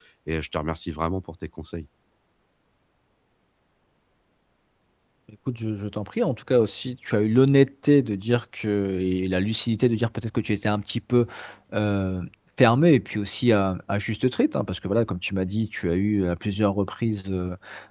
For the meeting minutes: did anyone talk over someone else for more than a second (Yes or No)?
No